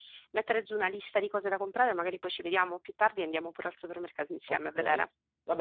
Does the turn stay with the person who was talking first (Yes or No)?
No